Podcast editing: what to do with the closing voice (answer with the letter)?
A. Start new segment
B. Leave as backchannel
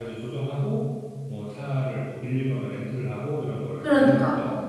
A